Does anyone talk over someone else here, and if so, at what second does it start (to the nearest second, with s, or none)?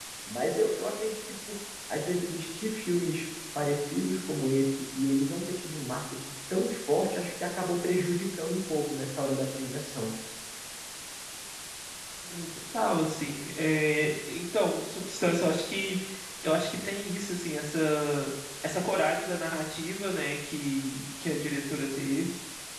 none